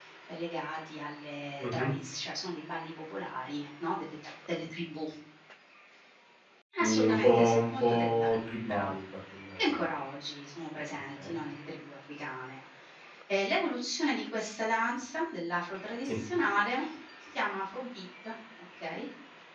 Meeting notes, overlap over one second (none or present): present